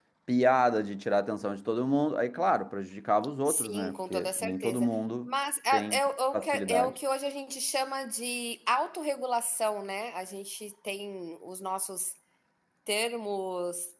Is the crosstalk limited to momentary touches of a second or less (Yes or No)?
No